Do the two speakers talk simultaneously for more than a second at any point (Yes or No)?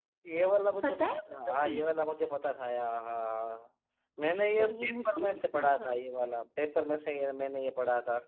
Yes